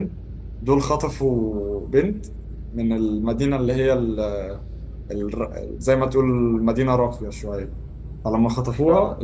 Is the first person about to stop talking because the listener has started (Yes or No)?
No